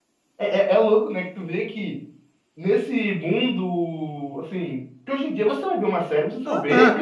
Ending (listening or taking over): taking over